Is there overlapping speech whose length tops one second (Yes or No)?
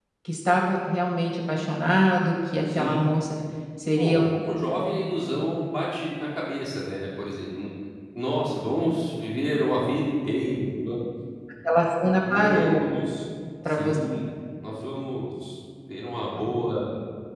No